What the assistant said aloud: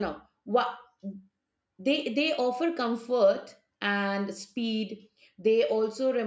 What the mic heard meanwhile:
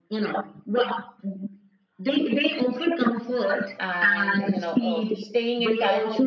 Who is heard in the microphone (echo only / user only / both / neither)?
both